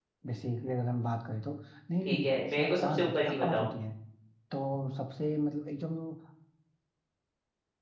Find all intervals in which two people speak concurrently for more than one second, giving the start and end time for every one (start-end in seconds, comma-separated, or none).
2.0-3.7